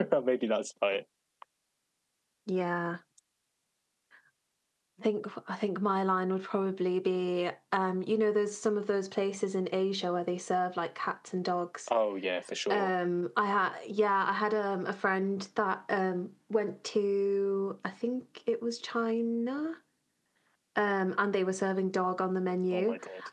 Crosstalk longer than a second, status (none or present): none